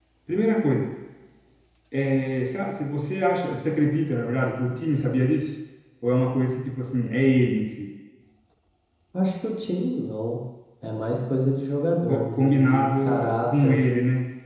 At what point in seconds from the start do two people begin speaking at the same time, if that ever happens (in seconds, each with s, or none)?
12.1 s